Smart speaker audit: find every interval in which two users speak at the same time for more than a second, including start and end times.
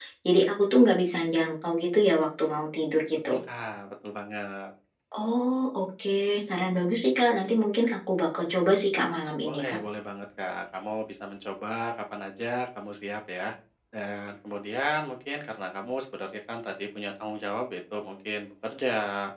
none

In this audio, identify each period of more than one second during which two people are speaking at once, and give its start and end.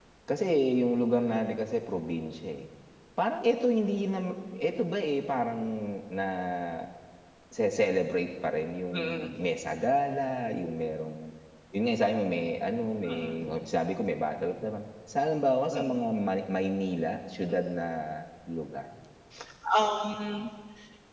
none

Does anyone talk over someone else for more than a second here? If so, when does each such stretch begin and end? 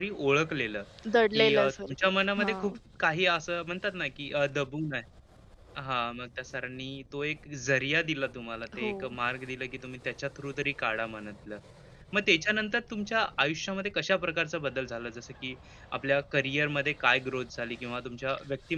1.3-2.8

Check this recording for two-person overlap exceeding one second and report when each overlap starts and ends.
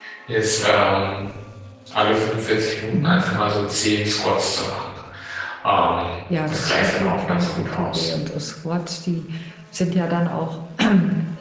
6.5-8.1

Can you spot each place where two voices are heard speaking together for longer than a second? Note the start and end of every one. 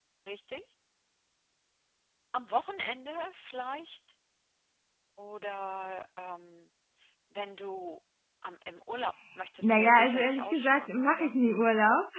9.6-11.3

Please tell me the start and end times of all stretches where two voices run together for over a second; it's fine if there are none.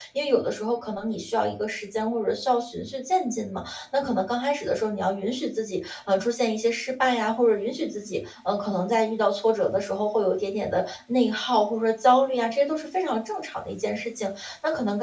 none

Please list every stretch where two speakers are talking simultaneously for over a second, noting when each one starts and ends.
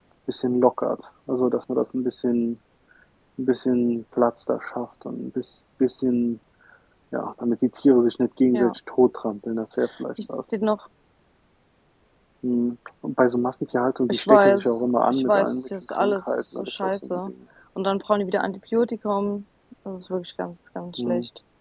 14.1-17.3

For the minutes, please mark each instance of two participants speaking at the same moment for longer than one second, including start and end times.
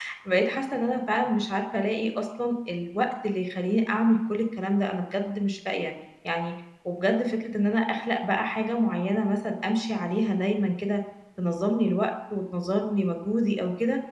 none

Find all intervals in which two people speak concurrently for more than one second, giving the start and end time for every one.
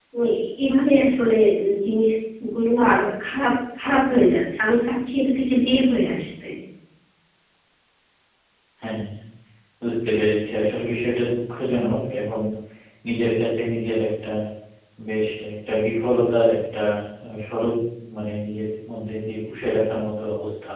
none

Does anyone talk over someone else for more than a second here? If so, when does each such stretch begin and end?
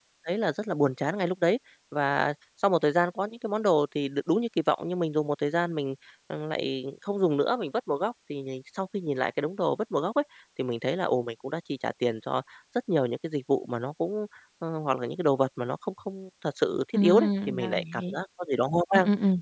17.0-18.2

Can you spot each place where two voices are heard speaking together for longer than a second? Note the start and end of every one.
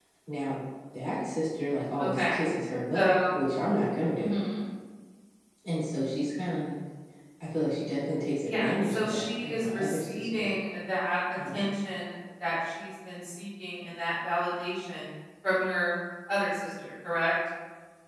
8.4-10.5

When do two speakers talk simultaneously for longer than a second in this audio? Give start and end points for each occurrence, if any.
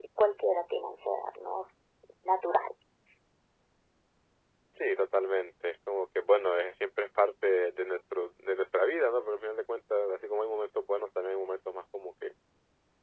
none

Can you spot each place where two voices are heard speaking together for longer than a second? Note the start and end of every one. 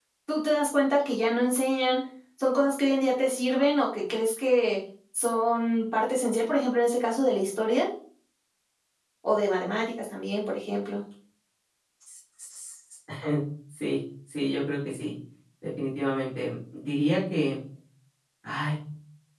none

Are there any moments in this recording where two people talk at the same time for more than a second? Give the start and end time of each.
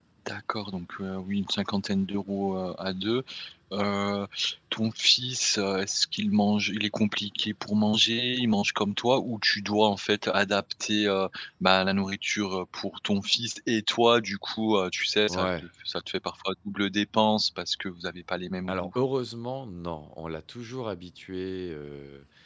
none

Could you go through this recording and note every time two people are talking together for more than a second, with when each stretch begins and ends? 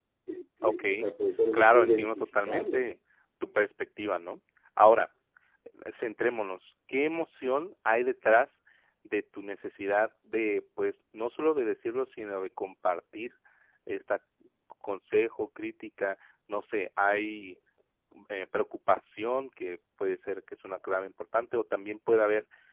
1.5-2.8

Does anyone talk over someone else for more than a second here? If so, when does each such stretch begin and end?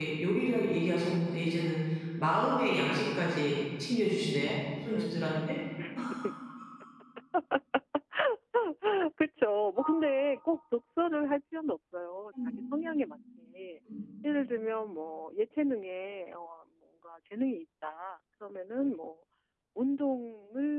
none

